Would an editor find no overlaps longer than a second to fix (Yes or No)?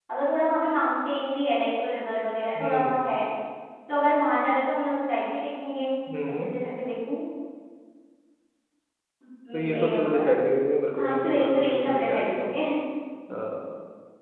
No